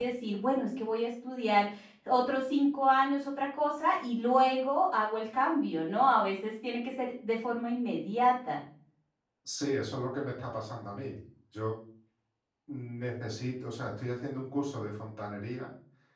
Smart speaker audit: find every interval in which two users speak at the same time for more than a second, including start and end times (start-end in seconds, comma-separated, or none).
none